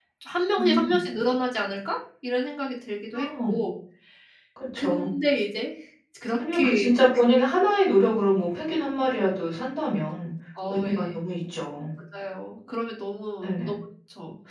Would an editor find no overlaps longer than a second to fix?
Yes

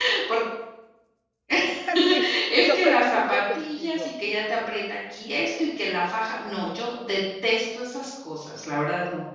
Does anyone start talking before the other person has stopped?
Yes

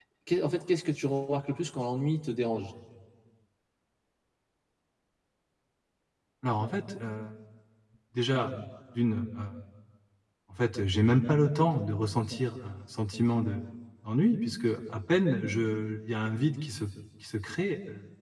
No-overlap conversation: Yes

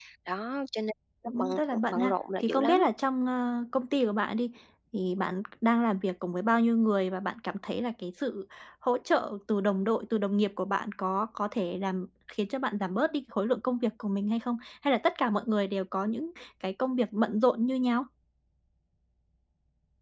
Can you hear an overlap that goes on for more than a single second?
Yes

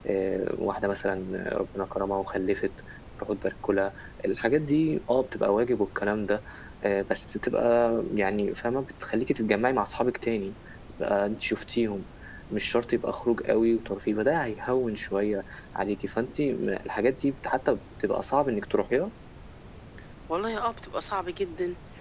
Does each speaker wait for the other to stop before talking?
Yes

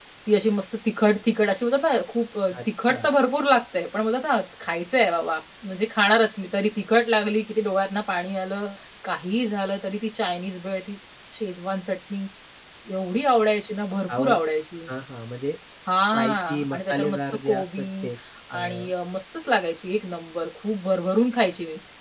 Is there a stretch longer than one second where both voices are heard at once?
Yes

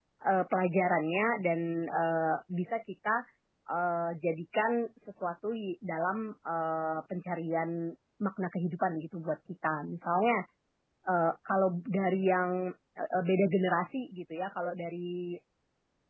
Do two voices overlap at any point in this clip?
No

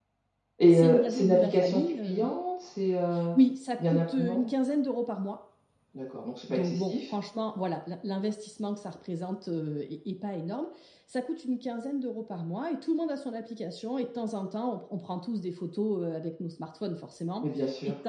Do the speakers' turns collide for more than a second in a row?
Yes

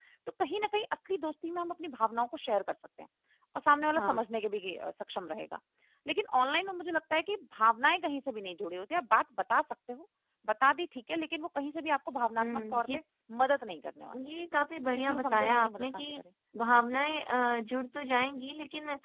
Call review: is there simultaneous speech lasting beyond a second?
Yes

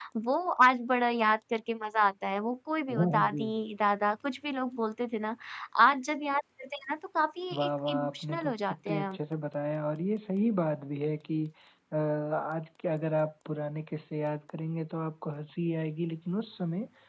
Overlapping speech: Yes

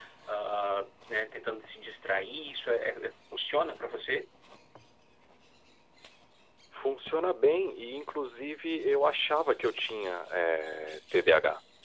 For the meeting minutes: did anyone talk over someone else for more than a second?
No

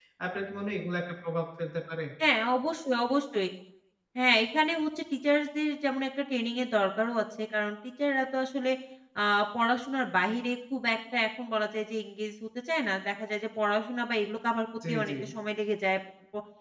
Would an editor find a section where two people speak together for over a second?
No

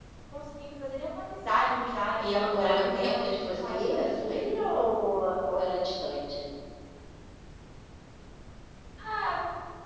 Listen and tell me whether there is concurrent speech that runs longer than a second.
Yes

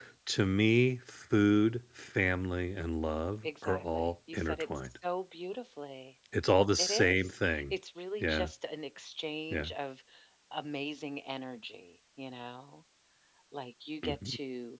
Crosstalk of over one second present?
Yes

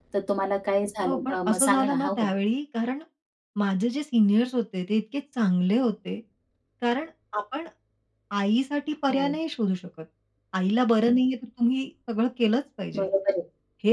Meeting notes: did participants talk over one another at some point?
Yes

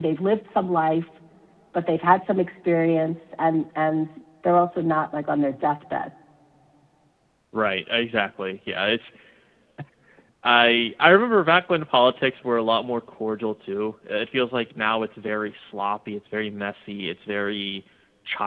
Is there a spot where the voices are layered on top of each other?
No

